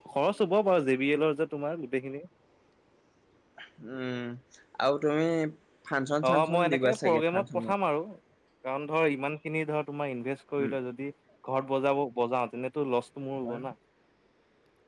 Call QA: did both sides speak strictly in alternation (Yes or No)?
No